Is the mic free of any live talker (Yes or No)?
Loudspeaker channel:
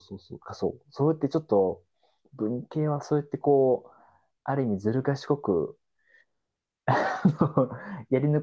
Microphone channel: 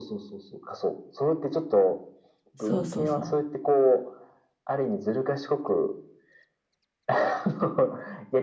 No